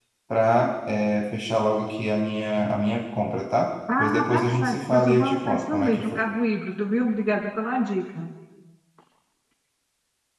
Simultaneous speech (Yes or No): Yes